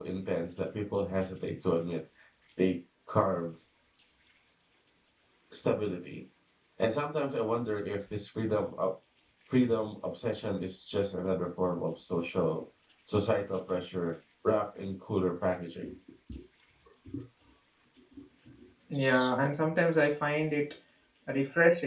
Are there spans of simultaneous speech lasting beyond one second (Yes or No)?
No